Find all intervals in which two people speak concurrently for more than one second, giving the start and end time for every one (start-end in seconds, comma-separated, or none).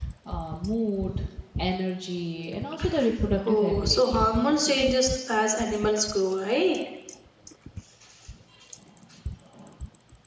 3.5-4.8